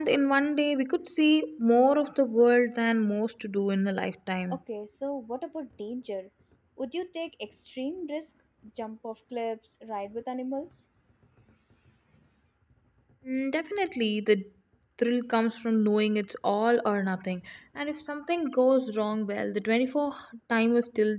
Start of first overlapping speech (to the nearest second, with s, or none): none